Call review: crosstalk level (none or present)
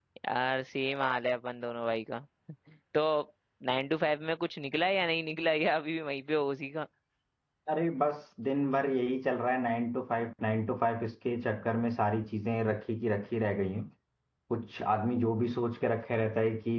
none